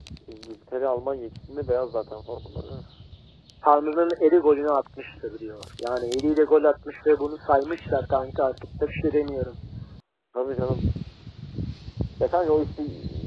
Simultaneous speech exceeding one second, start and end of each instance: none

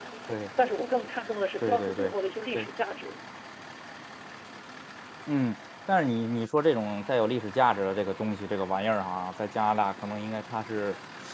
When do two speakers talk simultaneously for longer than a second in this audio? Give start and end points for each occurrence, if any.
none

